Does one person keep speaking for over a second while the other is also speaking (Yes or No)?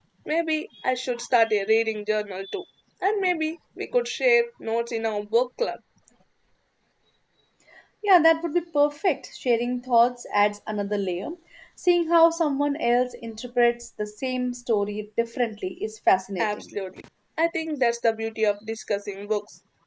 No